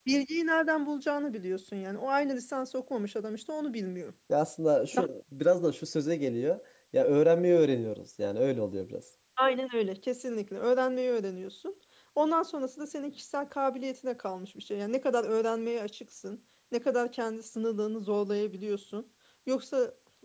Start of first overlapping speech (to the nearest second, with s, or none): none